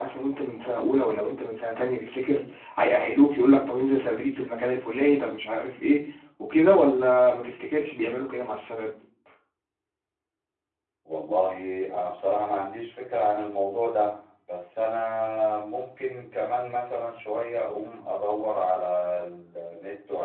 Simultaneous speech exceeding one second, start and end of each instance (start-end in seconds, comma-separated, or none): none